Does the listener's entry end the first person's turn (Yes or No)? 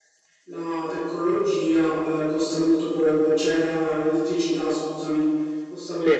No